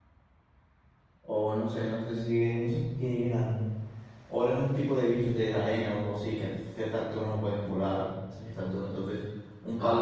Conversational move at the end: listening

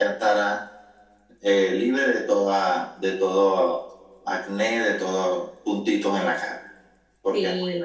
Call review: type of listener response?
taking over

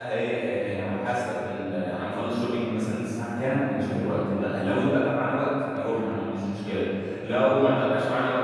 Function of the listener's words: listening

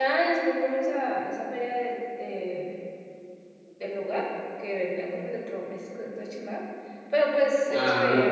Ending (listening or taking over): listening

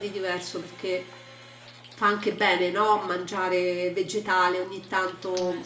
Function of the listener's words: listening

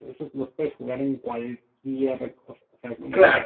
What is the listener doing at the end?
listening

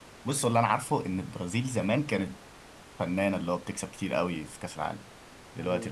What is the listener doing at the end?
taking over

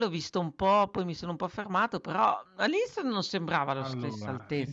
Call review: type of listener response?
taking over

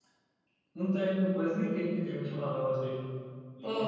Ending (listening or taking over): listening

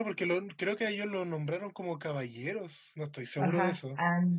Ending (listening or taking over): taking over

